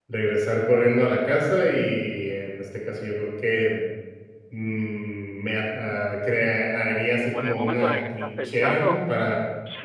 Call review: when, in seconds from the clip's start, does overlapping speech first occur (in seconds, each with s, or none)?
7.2 s